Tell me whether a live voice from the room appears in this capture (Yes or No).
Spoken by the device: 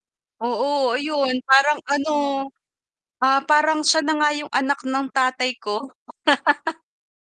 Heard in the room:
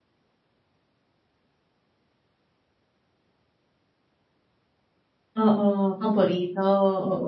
Yes